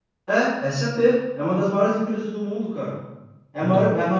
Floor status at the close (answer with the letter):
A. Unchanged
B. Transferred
A